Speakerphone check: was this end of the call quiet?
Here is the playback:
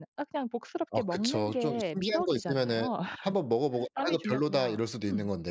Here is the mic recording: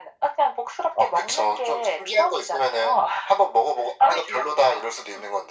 Yes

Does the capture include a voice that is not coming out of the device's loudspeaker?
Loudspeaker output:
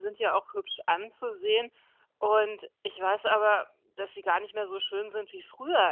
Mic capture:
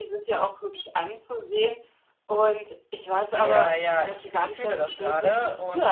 Yes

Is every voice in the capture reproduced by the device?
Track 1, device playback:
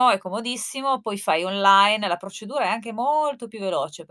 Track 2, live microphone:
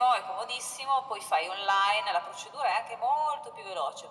Yes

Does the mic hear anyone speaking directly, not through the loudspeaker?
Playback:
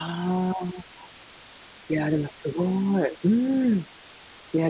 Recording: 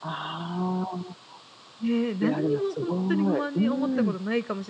Yes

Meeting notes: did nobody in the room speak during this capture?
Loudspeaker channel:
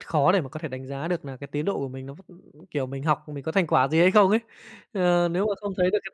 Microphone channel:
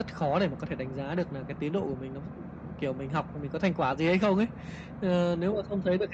Yes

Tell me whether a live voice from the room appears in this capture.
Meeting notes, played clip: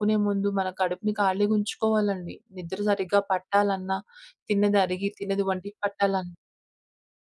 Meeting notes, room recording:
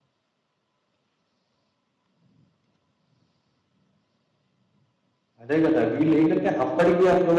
Yes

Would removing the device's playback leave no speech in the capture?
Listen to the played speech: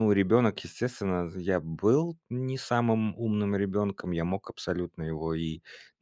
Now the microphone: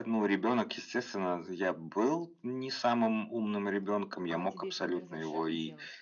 No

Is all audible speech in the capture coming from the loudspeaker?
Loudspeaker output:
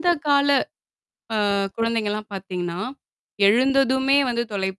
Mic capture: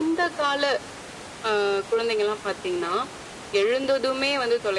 Yes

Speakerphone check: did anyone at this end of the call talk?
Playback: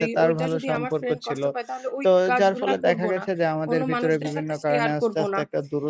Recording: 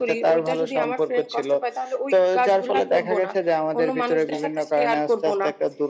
No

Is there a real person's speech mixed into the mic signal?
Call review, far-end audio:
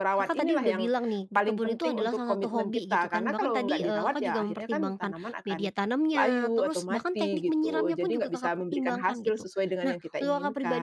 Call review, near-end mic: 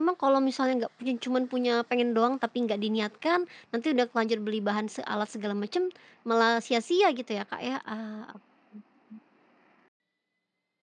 Yes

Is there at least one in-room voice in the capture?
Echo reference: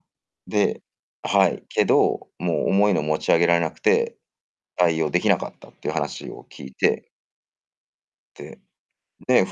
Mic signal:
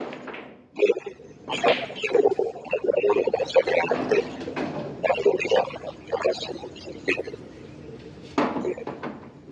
No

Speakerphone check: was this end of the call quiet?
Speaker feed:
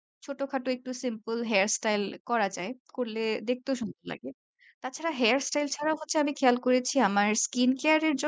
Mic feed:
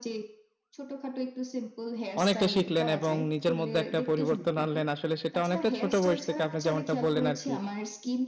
No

